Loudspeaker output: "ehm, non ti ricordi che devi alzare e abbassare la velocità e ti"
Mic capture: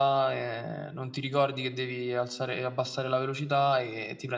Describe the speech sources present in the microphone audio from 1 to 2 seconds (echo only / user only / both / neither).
echo only